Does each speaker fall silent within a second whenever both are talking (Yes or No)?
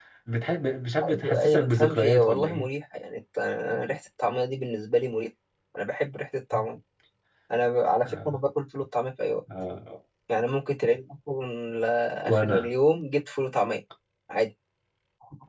No